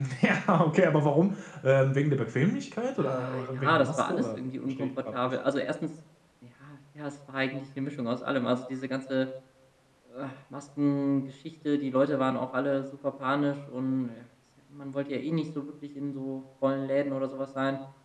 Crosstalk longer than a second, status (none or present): present